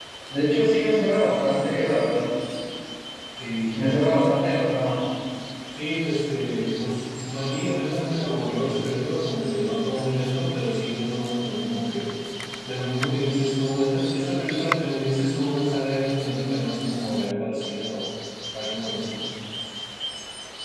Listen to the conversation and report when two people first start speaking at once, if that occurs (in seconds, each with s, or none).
none